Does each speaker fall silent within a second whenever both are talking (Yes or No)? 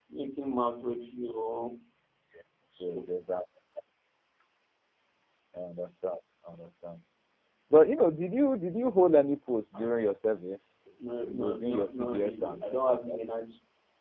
No